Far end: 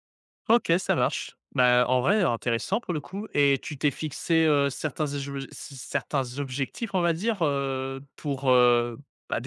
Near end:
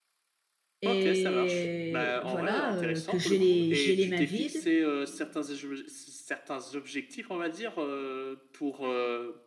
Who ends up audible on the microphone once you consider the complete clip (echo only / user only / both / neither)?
both